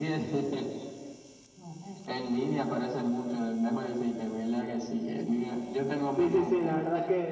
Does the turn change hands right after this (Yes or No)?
Yes